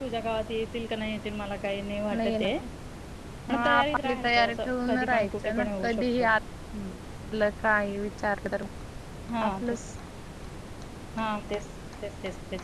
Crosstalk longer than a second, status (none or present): present